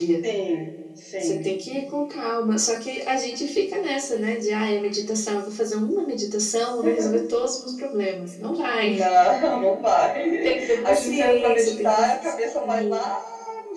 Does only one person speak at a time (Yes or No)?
No